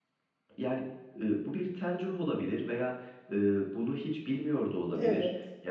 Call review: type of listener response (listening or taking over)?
listening